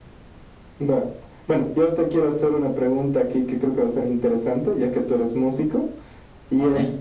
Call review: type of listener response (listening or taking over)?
listening